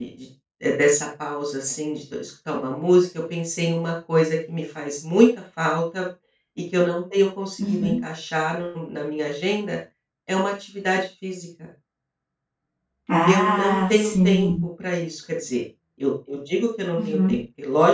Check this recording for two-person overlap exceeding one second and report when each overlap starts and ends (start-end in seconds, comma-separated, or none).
13.2-14.5